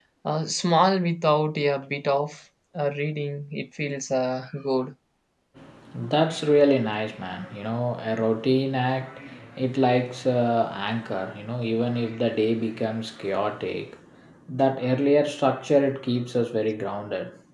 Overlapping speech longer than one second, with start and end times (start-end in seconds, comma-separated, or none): none